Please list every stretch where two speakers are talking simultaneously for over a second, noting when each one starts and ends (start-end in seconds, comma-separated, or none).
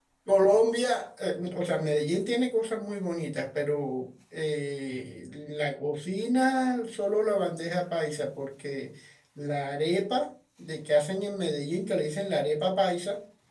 none